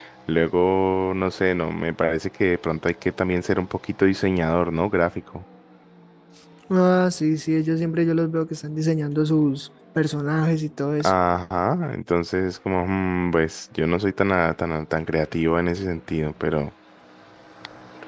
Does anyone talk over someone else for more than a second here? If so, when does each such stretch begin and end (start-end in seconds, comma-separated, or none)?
none